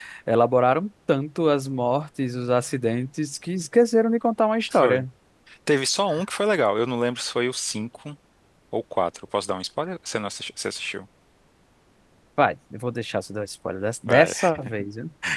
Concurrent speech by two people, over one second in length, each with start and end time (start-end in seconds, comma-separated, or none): none